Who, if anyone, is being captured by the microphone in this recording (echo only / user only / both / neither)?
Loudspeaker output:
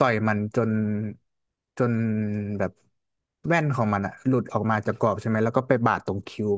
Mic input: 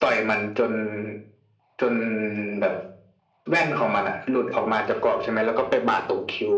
echo only